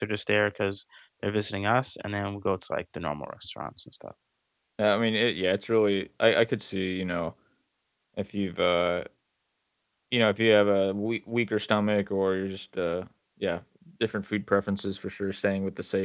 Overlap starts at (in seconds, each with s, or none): none